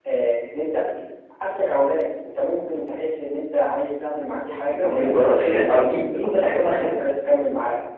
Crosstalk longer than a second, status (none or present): present